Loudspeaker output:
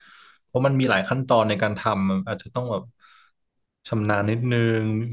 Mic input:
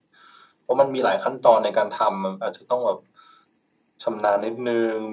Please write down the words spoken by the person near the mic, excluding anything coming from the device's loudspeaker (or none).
none